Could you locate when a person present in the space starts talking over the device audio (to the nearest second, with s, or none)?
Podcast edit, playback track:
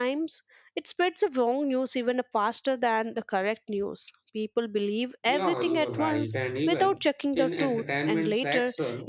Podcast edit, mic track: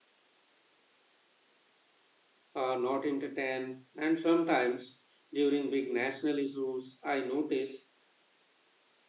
3 s